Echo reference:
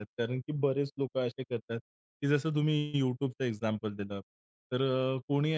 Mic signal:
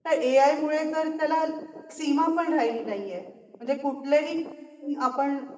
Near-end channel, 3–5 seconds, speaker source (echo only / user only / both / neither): user only